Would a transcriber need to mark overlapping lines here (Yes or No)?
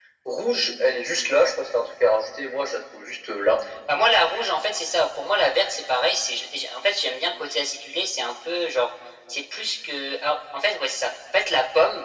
No